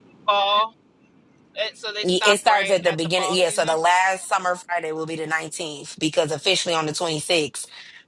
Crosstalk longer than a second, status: present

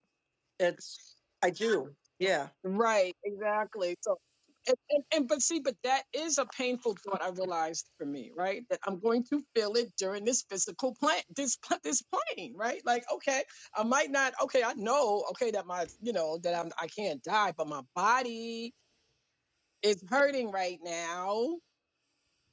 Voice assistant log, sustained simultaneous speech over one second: none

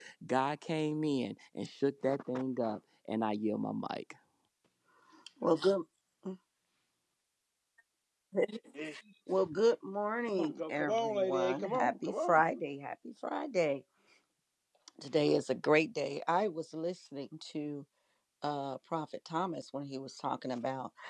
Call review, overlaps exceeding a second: present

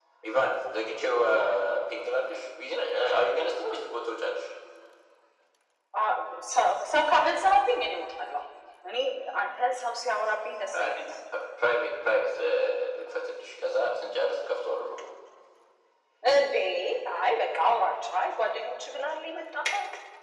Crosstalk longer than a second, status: none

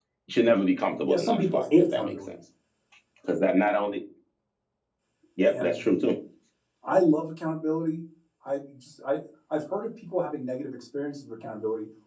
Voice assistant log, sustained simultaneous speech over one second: present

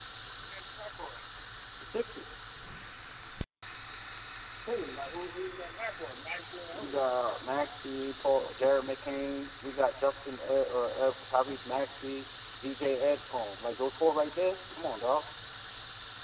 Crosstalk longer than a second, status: none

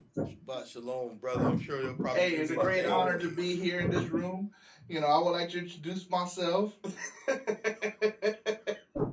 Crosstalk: present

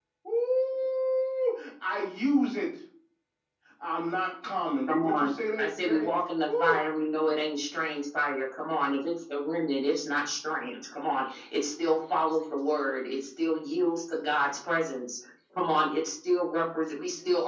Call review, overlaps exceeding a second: present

